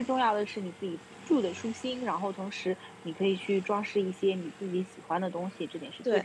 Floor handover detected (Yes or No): Yes